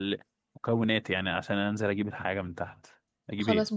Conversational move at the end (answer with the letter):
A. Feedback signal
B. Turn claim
B